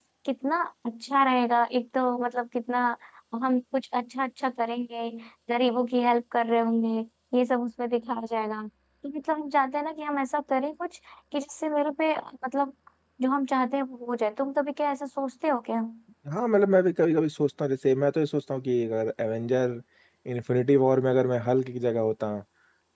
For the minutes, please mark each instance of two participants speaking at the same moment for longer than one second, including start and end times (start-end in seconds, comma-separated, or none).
none